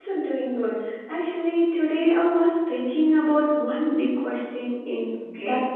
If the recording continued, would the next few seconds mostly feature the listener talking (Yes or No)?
No